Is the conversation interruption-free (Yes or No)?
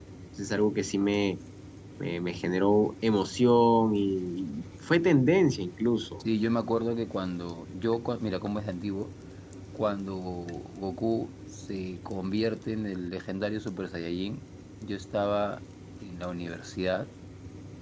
Yes